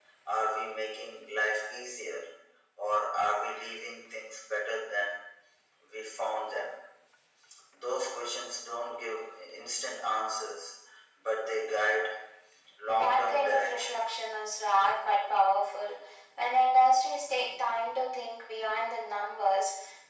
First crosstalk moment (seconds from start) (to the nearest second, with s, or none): 13 s